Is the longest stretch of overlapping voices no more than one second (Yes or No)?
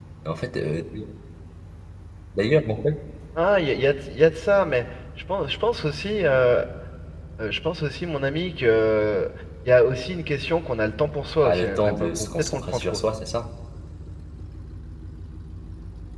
No